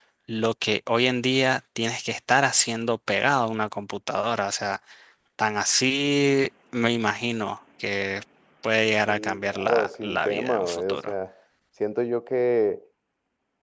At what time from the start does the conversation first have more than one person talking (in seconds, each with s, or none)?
9.1 s